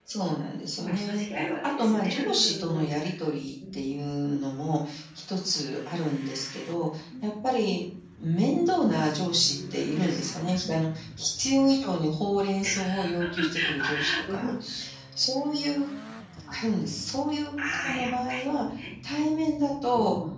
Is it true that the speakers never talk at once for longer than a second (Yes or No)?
No